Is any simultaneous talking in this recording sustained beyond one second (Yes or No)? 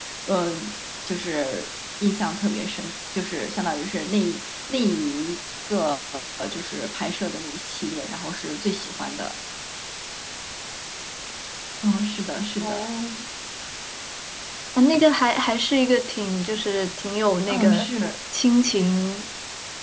No